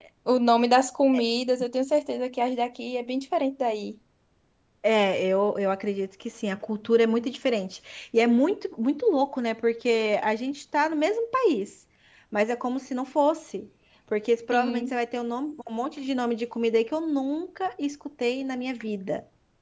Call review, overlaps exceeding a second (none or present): none